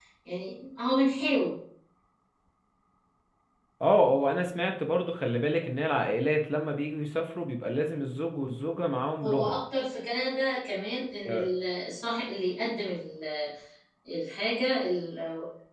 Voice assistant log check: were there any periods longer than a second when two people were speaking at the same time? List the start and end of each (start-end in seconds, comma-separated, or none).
none